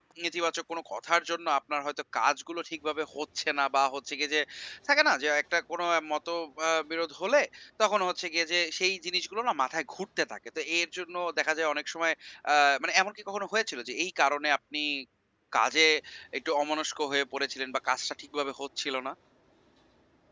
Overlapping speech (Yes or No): No